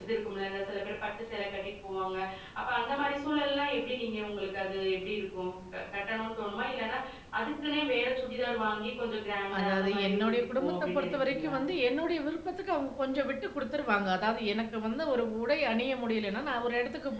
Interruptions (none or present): present